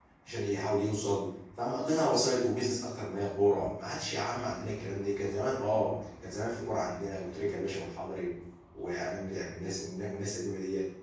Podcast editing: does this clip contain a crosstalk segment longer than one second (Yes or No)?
No